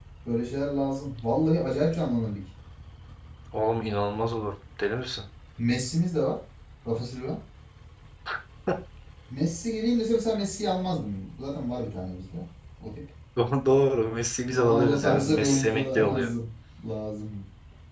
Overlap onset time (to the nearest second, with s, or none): 14 s